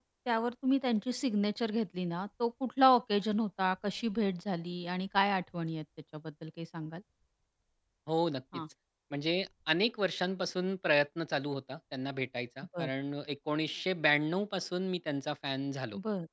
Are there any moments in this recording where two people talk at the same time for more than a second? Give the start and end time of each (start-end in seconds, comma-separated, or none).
none